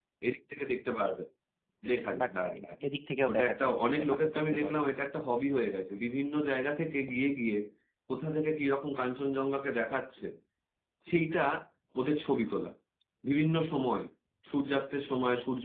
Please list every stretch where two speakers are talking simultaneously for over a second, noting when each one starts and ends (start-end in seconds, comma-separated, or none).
3.3-4.7